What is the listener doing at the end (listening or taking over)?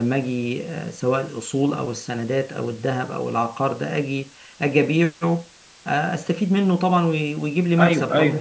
taking over